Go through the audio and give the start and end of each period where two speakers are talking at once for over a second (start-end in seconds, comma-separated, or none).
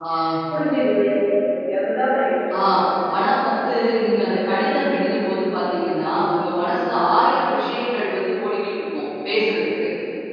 none